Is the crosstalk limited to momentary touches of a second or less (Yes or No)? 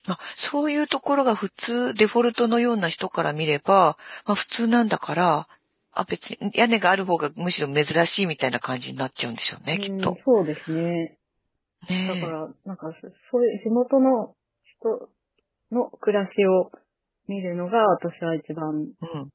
Yes